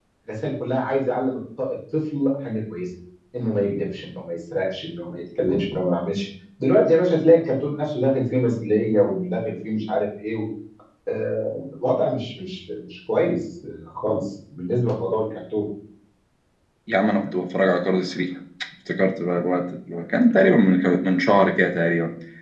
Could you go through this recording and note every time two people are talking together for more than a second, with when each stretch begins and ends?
none

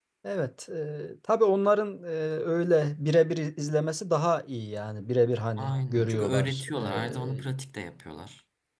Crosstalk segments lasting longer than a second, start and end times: 5.6-7.4

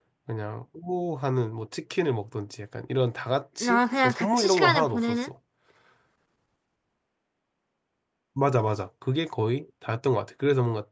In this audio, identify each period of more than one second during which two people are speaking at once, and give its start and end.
3.6-5.3

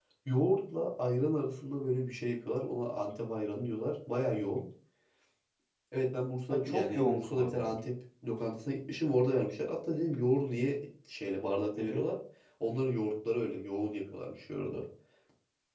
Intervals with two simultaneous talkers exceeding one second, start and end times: 6.5-7.7

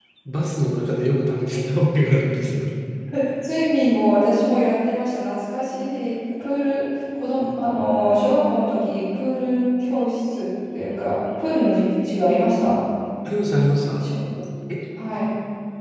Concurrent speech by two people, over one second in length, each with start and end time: none

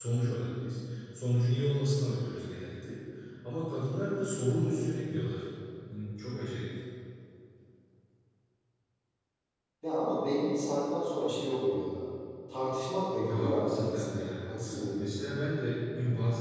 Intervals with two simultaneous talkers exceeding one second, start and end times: 13.2-14.5

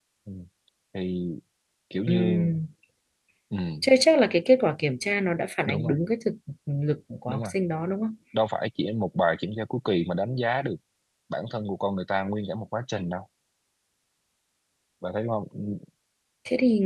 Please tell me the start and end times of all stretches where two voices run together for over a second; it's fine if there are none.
none

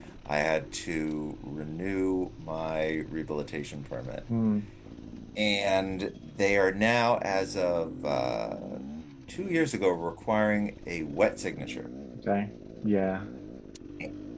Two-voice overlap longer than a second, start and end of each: none

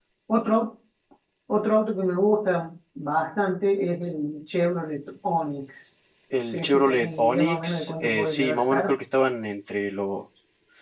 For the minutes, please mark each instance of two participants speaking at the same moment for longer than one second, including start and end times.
6.5-8.9

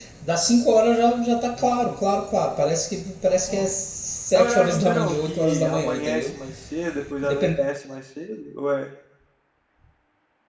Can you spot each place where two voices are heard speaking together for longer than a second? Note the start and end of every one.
4.3-6.3

